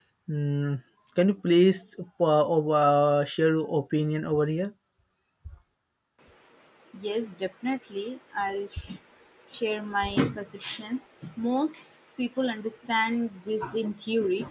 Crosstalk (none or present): none